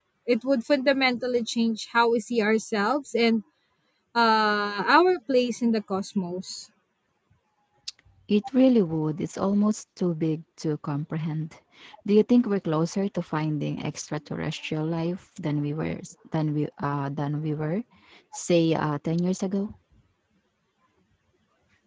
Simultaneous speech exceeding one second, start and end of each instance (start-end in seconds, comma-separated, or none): none